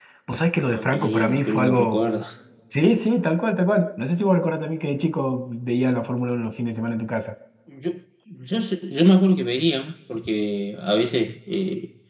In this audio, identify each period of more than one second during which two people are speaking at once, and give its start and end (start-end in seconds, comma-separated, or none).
0.6-2.0